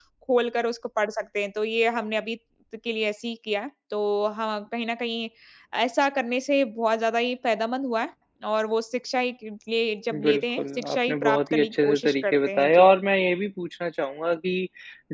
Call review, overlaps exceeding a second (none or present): present